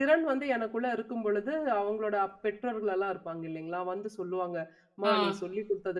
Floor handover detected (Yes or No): No